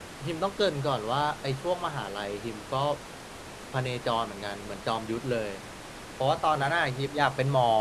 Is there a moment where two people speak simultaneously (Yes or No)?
No